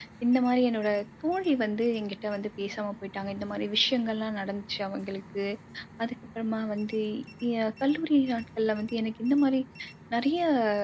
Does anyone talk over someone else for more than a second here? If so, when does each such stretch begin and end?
none

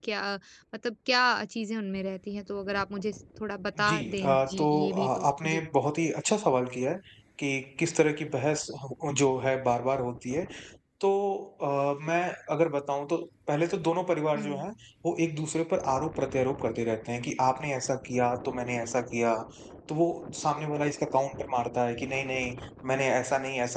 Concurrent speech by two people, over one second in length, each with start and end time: 3.8-5.6

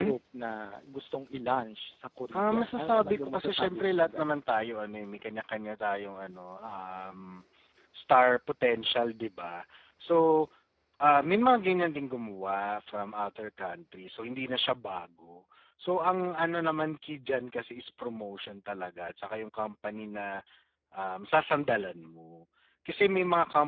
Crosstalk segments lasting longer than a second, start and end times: 2.3-4.4

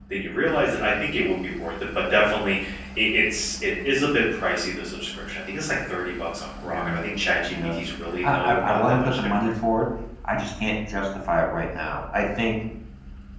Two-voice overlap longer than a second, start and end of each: 8.2-9.5

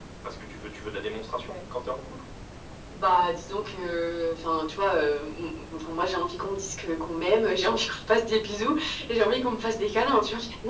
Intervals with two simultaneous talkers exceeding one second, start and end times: none

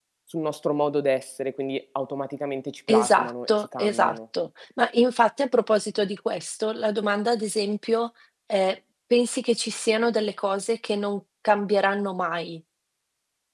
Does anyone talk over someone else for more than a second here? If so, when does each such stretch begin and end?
2.9-4.2

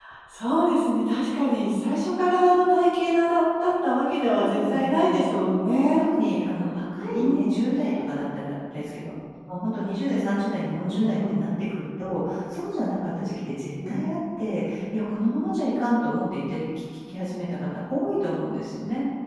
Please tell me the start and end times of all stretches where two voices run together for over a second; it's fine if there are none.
4.2-5.9

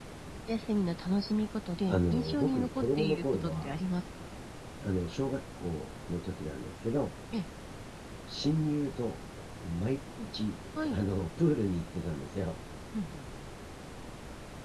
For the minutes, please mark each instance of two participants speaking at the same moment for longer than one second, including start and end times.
1.9-3.7

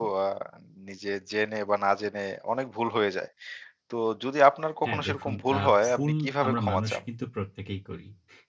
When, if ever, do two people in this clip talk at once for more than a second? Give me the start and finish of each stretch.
4.8-7.0

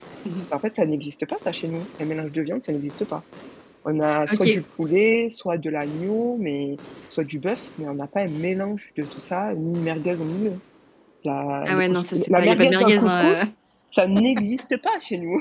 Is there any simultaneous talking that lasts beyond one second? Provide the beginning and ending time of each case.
11.7-13.5

